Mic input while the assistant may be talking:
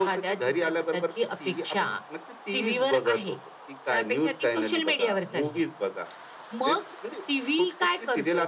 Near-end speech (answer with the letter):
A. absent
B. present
A